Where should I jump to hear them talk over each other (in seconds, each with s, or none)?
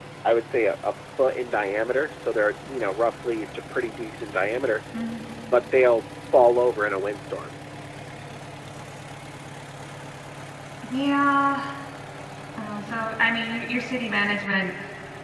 none